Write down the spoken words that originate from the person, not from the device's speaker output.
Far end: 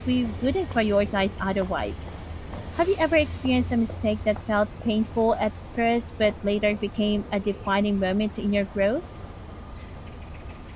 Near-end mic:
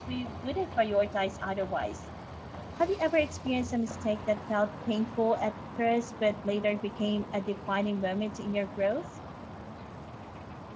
none

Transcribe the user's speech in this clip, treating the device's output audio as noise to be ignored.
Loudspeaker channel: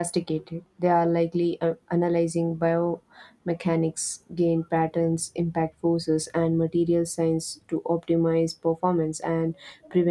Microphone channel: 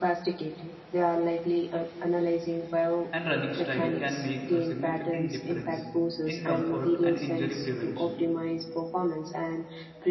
and running style can make a significant difference in comfort and injury prevention.

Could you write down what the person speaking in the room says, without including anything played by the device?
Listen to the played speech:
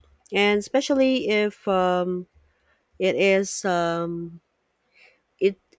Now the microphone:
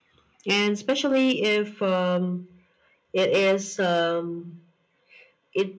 none

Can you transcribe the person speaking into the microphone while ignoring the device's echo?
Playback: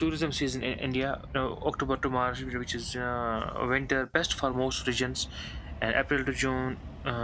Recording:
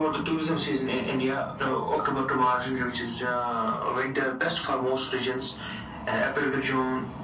none

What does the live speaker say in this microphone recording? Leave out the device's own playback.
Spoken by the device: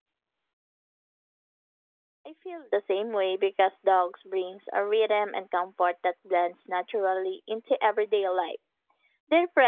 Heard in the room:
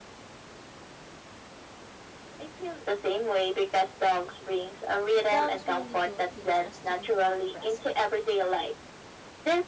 Dogs really do teach us to be more present.

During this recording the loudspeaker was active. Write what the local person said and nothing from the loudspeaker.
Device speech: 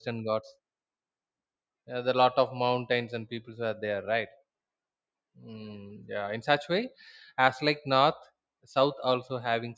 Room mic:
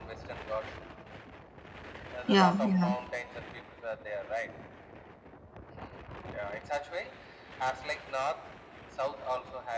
Yeah. Yeah.

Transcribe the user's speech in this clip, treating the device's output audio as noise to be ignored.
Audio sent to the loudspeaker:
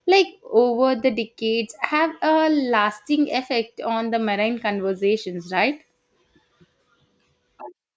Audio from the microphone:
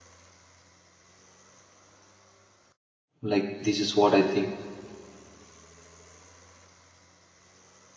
Like this is what I think.

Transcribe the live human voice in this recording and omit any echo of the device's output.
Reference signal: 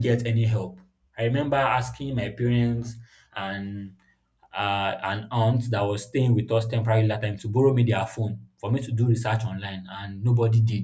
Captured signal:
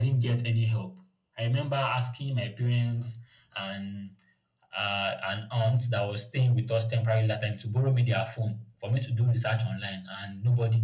none

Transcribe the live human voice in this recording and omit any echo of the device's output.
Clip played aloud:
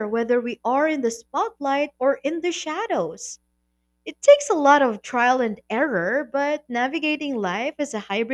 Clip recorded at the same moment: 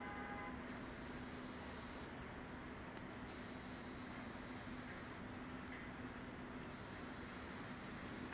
none

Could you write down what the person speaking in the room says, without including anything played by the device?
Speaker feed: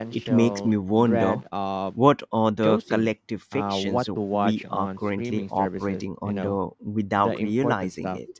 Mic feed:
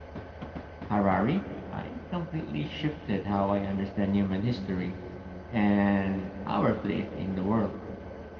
Harari. Uh, it completely shifted how I understand human history and our place in the world.

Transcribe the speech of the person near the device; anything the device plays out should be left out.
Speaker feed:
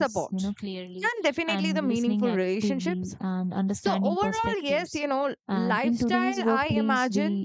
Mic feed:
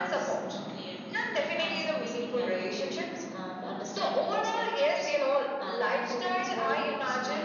none

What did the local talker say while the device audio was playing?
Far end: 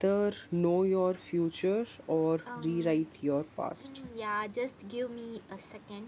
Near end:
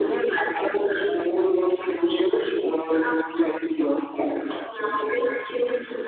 none

